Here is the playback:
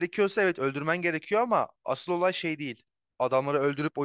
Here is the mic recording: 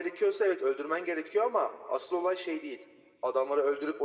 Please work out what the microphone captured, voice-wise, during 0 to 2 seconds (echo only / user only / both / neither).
echo only